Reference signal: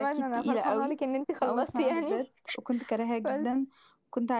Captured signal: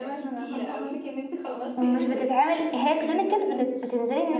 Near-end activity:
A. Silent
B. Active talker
B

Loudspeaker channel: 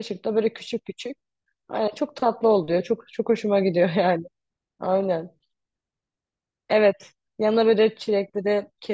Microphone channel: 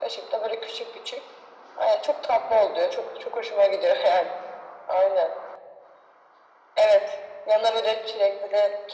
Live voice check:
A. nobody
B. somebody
A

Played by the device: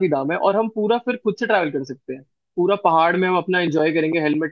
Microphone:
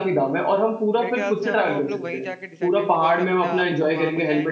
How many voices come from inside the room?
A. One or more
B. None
A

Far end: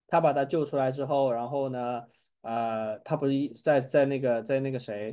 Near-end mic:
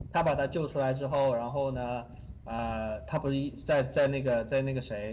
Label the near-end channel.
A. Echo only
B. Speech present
A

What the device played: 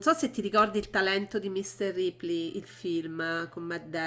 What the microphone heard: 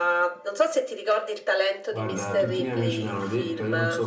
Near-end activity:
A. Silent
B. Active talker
B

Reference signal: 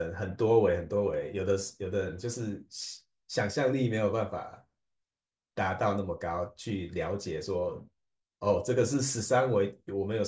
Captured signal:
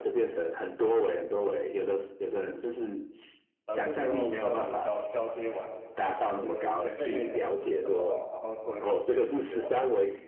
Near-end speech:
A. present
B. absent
A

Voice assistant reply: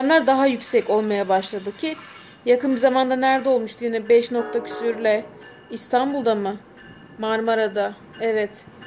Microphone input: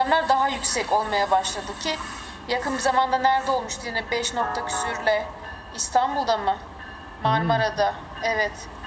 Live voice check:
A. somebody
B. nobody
A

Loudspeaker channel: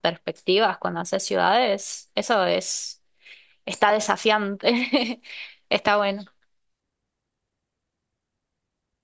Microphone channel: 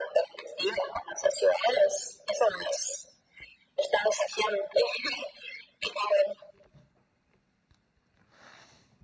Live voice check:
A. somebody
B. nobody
B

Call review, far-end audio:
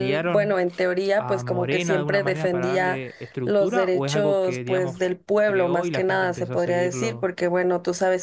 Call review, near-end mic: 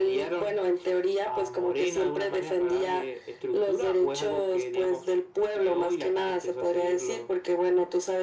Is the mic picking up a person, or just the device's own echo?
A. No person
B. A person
A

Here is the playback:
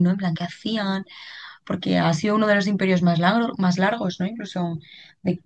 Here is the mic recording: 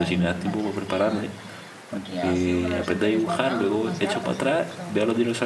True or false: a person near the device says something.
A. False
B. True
B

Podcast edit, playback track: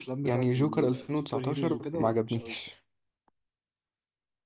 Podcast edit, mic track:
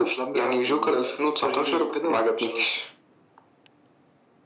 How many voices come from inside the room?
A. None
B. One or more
A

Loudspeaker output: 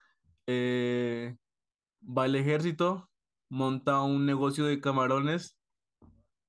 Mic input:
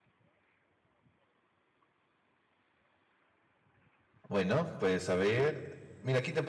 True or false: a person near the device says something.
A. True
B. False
A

